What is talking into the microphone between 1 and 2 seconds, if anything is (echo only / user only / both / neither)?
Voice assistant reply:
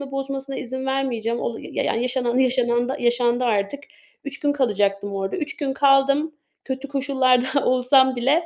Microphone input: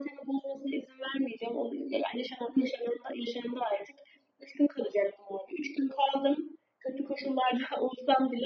echo only